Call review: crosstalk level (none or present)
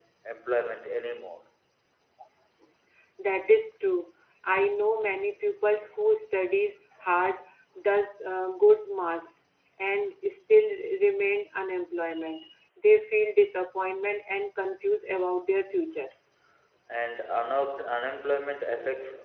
none